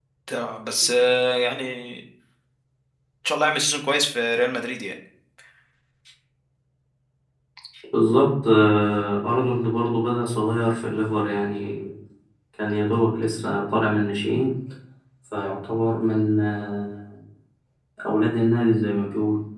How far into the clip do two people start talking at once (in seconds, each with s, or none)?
none